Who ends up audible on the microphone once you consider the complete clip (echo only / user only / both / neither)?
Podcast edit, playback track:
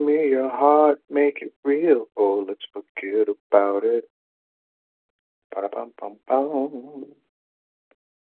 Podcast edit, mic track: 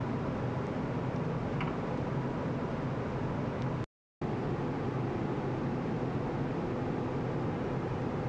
neither